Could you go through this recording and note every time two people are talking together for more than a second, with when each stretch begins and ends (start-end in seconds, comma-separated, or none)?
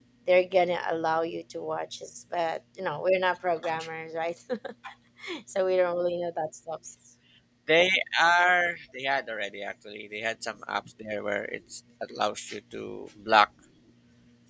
none